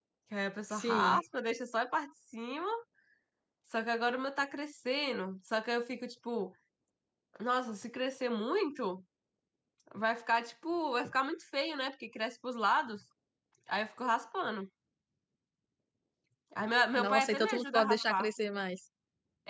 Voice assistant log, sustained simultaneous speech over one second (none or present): present